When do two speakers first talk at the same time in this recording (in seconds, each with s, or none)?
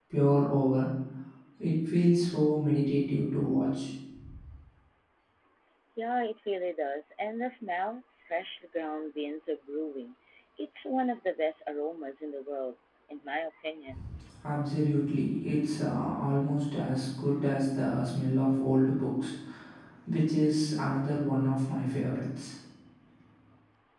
none